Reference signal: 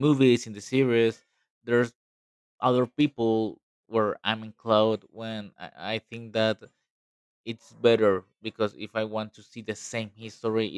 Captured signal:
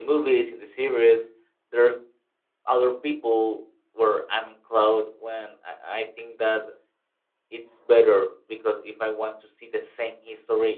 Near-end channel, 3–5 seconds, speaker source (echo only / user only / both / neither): echo only